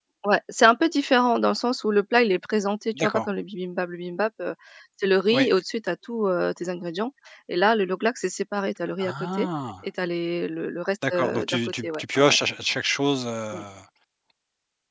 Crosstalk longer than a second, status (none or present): present